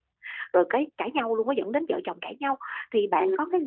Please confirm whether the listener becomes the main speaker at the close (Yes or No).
No